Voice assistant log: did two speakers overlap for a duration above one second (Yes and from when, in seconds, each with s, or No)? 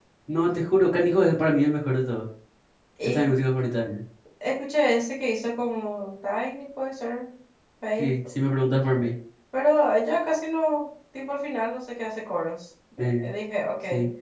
No